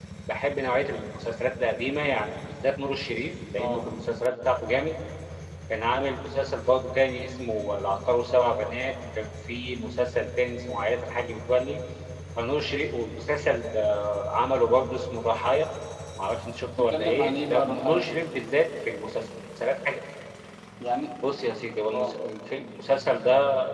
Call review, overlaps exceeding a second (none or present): present